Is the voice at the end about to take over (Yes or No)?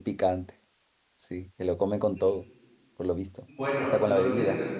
Yes